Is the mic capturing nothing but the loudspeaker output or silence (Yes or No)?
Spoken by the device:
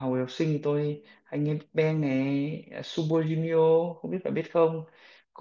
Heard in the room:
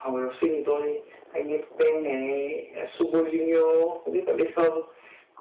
Yes